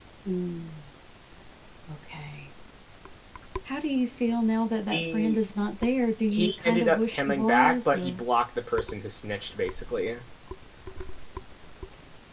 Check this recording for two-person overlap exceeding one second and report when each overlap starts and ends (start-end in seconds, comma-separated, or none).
6.3-8.2